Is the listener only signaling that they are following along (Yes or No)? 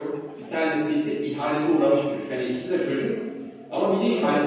Yes